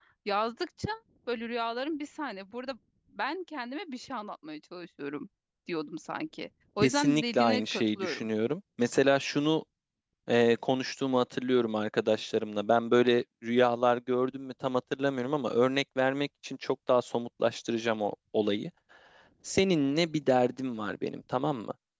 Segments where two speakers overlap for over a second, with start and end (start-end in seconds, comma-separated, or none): 6.8-8.3